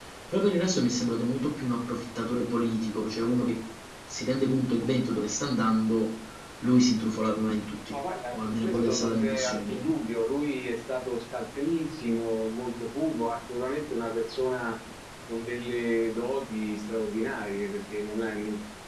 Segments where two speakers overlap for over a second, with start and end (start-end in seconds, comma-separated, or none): 8.3-9.8